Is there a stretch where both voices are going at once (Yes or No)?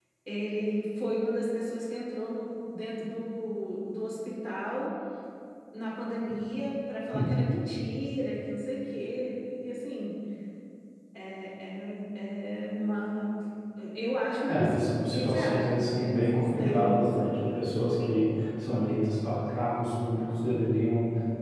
Yes